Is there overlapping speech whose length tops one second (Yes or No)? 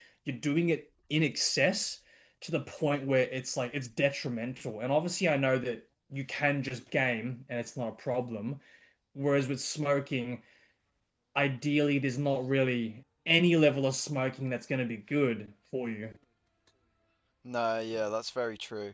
No